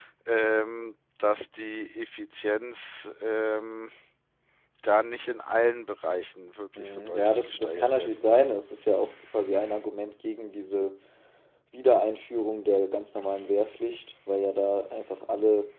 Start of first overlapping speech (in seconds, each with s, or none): 6.8 s